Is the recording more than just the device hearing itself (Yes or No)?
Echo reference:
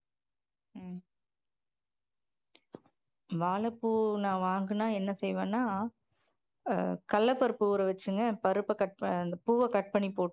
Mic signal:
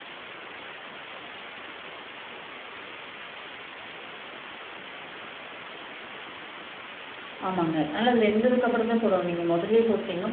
Yes